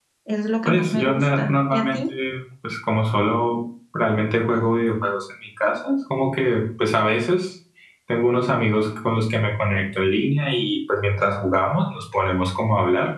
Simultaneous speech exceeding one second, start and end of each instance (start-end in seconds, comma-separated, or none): 0.6-2.0